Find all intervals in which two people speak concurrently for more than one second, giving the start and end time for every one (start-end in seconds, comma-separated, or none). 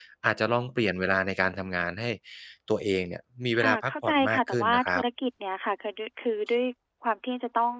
3.6-5.0